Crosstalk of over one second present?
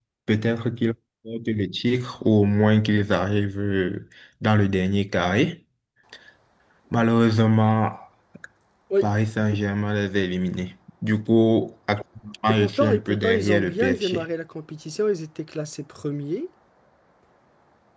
Yes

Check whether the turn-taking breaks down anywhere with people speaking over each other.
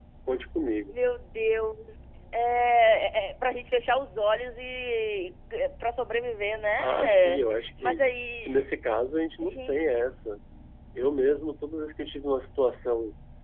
Yes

